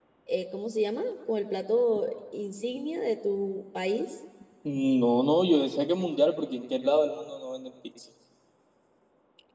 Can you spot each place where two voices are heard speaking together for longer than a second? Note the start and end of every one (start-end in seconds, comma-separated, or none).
none